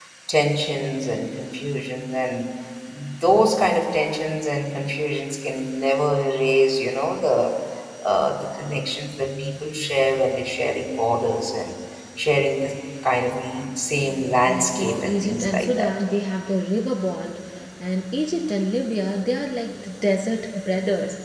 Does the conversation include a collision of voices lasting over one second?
Yes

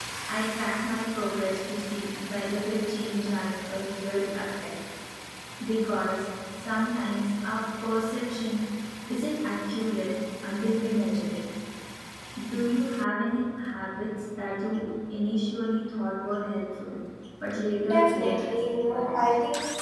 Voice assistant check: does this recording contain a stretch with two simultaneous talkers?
Yes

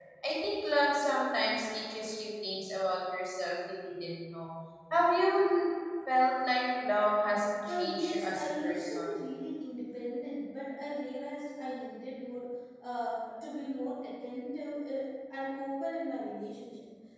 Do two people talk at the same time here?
Yes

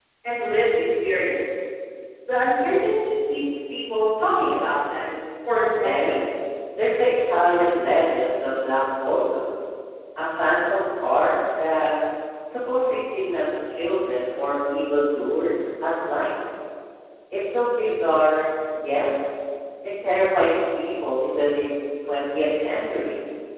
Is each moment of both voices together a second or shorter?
Yes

